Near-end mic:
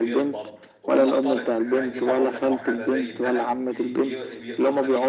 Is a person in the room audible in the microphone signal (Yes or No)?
Yes